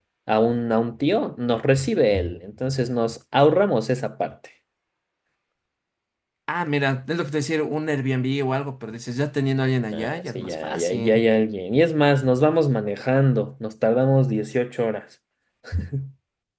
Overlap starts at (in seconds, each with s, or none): 9.9 s